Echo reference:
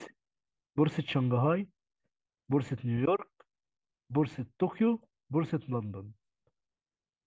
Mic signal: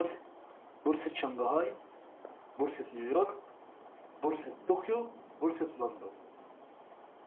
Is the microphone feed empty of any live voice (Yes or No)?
Yes